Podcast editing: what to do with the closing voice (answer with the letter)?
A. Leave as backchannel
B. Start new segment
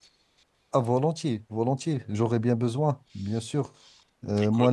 A